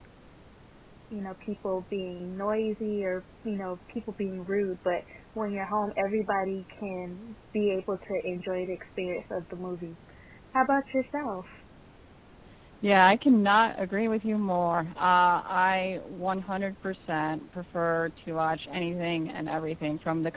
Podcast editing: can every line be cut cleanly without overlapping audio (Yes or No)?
Yes